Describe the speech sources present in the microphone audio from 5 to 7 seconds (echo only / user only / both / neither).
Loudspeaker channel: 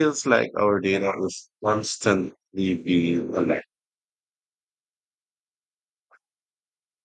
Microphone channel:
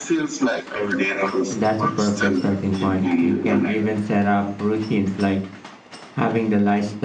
user only